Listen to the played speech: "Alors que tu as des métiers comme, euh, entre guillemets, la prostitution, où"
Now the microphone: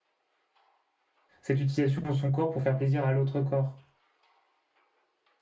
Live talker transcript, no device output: cette utilisation de son corps pour faire plaisir à l'autre corps.

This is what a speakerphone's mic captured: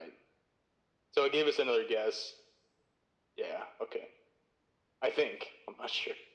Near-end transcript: none

